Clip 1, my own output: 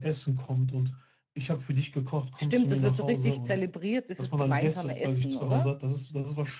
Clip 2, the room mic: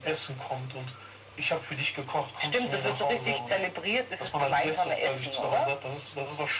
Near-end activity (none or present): none